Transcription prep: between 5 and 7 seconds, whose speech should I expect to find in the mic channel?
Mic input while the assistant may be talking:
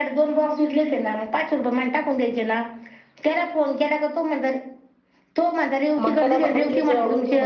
both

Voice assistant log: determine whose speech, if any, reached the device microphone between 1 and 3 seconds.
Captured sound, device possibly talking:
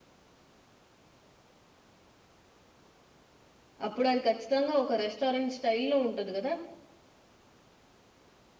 neither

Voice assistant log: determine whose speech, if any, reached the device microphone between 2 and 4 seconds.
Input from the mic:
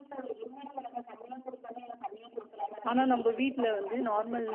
both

